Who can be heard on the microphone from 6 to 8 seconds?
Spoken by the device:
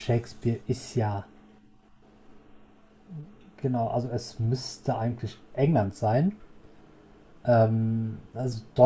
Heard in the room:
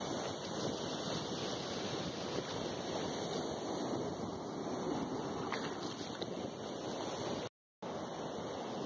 neither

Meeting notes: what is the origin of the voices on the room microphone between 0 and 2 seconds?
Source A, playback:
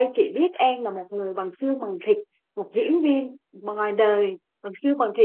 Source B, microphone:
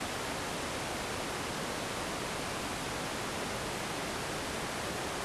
neither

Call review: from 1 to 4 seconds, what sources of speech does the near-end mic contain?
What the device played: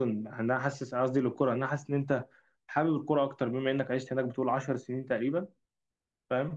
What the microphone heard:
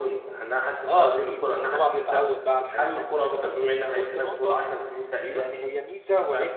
both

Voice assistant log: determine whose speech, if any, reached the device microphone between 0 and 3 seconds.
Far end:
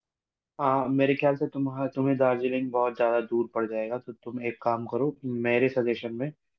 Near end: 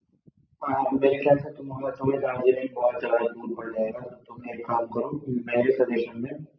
echo only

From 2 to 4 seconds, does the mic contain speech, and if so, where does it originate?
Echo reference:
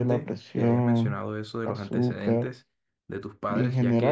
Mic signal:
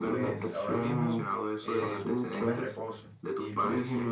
both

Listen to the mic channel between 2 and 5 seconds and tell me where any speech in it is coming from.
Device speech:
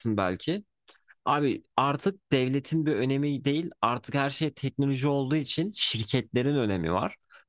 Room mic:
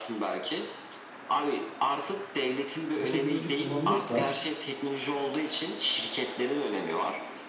both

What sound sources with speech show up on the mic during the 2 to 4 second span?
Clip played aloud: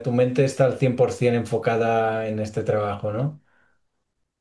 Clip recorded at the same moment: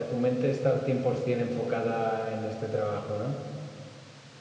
echo only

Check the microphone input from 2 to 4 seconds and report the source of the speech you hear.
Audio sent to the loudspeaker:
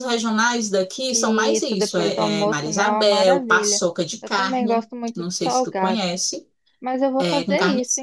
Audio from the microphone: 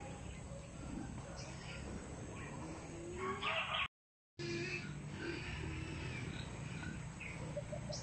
neither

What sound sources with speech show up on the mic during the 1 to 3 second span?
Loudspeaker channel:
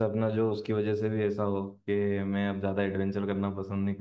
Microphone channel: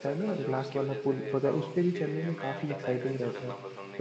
both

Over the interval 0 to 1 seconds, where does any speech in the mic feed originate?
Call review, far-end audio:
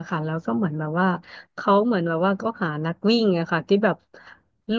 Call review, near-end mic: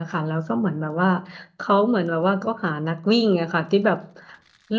echo only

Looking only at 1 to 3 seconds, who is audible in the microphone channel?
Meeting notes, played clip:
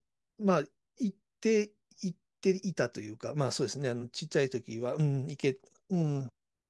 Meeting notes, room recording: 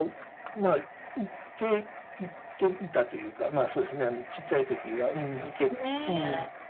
echo only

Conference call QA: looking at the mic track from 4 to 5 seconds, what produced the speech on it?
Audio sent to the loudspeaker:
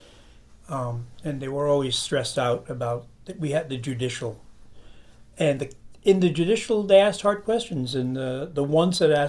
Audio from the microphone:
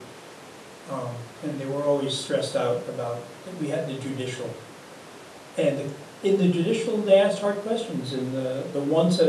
echo only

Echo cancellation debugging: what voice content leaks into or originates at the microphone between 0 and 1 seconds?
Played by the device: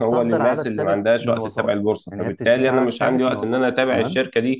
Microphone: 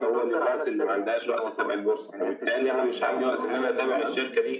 echo only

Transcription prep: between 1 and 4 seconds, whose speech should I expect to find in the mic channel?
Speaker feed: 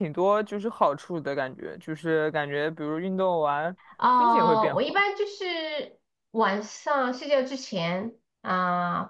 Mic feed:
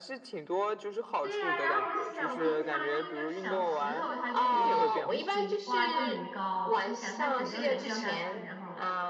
both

